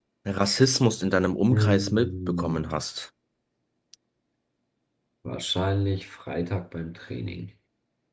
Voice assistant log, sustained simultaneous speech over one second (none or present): present